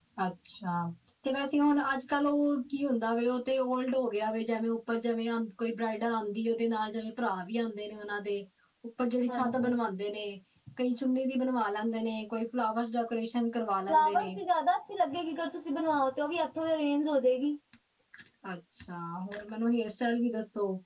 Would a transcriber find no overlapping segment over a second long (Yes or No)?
Yes